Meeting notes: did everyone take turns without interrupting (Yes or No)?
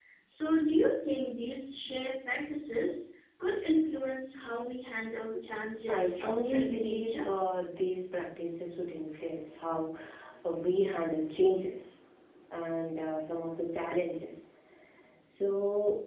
No